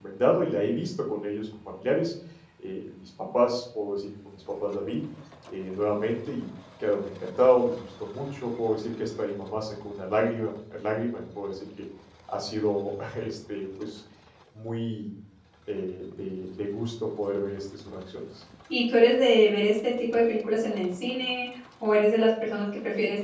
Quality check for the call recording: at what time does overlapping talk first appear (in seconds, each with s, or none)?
none